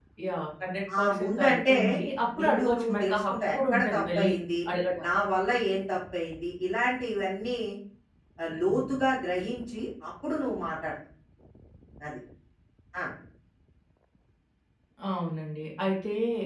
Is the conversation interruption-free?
No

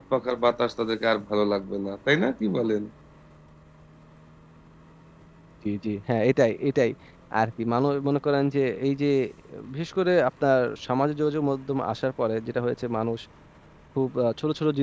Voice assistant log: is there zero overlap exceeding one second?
Yes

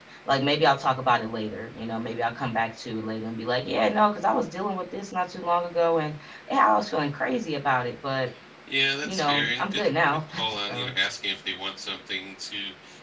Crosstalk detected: Yes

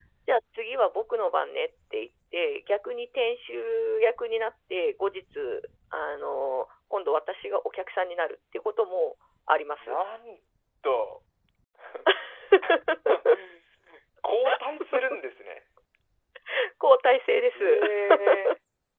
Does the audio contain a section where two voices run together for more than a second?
No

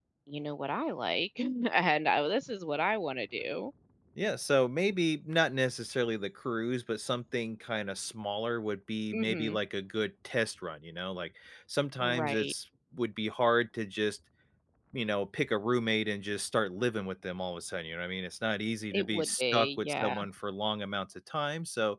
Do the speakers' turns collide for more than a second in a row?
Yes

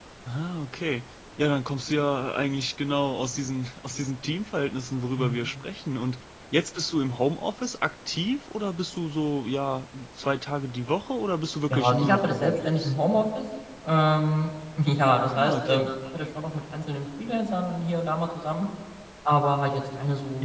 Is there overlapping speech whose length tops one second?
Yes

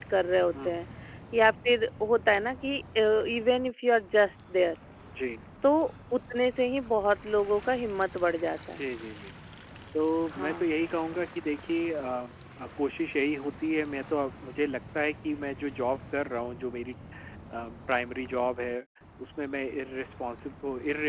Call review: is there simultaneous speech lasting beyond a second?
No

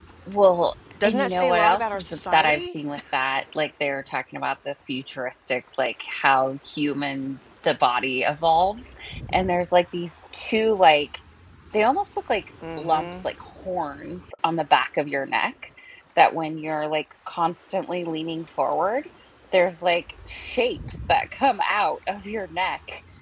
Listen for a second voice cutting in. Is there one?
Yes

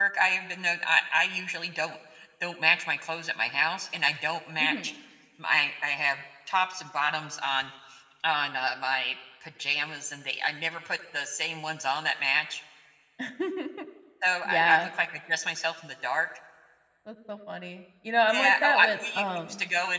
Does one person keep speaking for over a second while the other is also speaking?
Yes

